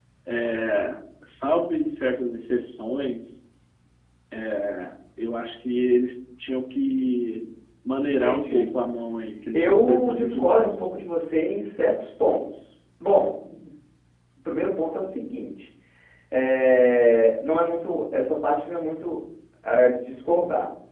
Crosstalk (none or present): present